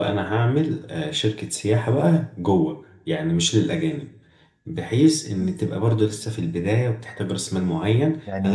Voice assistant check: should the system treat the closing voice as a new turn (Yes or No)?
No